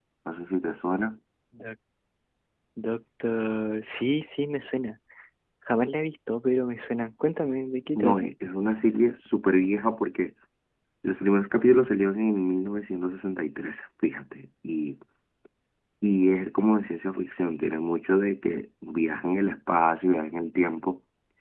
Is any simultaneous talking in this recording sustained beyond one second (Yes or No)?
No